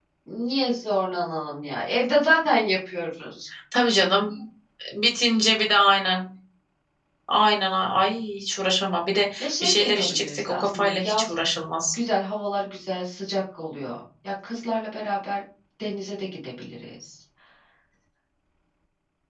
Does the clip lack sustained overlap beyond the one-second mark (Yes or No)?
No